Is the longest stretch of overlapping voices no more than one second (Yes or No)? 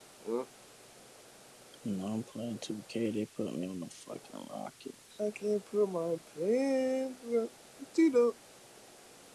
Yes